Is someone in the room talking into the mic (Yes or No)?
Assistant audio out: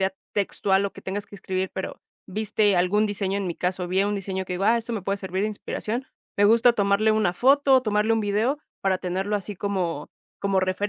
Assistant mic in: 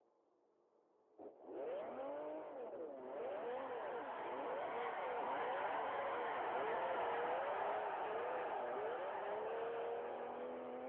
No